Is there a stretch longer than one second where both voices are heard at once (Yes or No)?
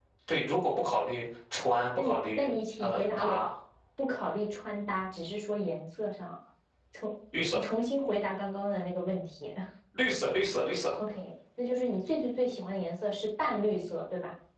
Yes